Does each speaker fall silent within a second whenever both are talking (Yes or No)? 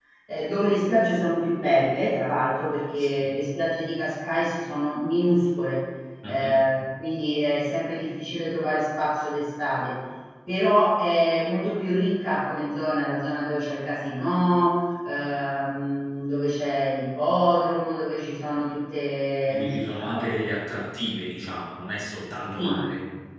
Yes